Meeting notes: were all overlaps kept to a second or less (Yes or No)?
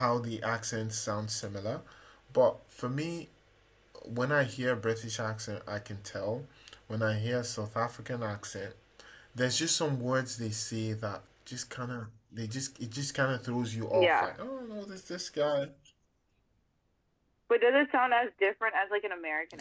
Yes